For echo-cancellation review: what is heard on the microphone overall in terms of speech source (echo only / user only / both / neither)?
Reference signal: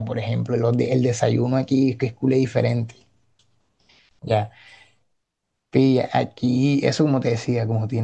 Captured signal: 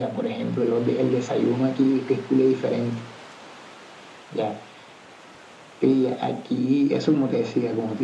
echo only